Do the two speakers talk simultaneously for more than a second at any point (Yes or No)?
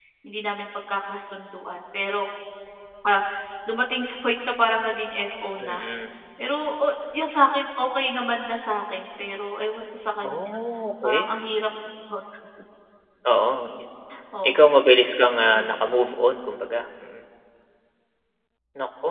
No